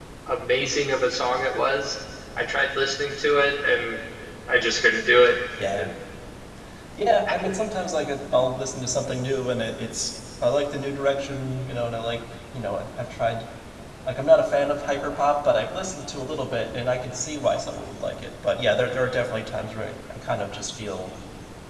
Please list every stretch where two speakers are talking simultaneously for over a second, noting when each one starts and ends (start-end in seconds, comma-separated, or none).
none